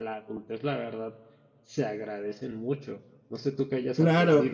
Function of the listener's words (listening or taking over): taking over